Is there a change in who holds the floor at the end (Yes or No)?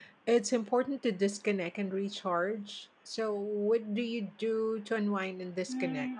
Yes